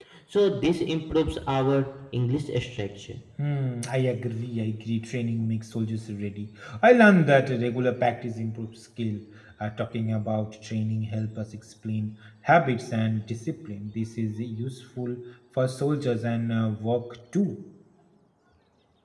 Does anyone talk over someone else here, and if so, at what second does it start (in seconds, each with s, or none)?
none